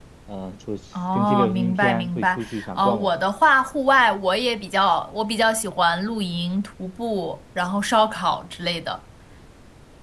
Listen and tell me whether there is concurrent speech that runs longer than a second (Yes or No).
Yes